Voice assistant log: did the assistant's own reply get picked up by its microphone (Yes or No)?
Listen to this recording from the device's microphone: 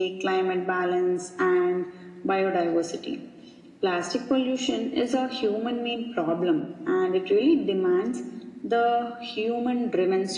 Yes